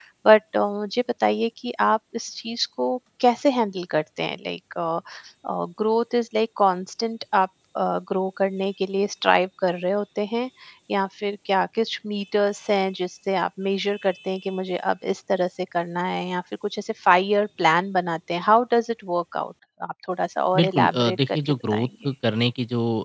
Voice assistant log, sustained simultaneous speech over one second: present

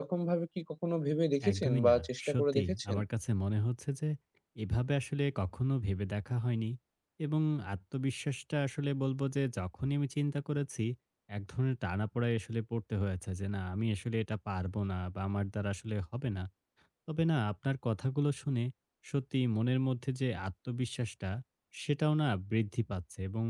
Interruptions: present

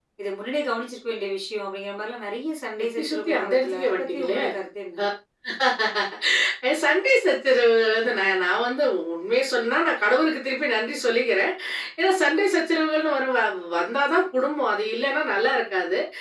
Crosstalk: present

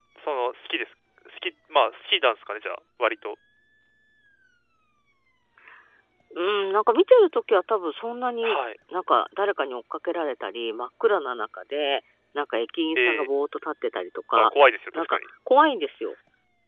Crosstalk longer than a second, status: none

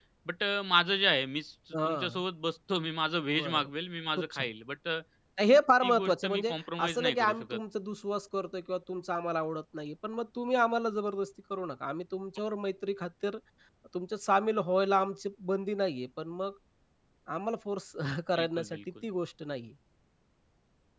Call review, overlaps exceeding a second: present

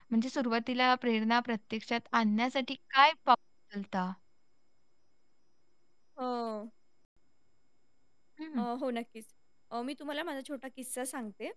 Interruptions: none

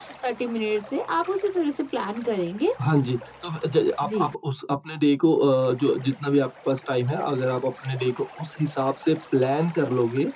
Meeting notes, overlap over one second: none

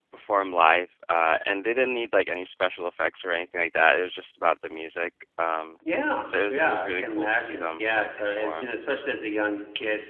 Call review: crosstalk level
present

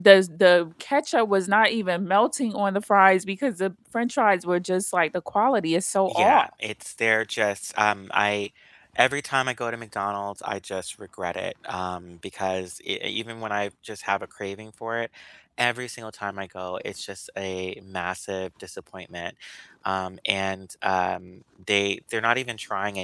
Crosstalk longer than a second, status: none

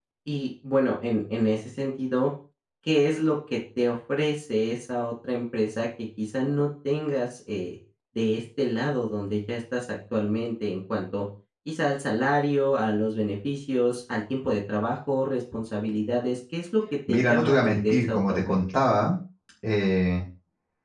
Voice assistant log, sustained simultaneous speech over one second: present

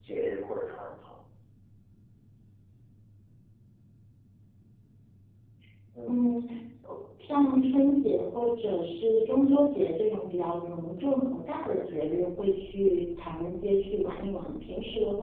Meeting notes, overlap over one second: none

